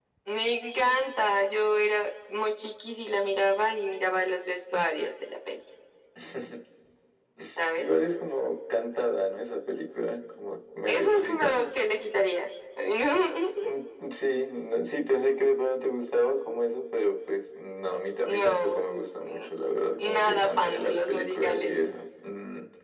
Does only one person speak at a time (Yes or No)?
No